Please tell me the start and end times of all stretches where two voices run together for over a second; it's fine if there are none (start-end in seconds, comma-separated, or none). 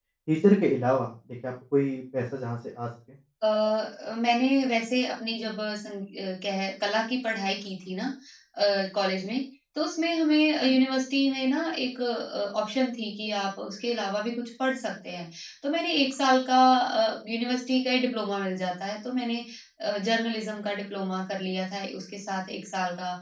none